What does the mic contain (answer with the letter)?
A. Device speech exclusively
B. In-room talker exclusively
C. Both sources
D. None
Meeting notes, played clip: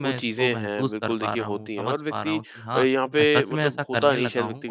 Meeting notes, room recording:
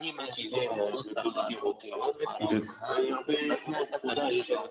C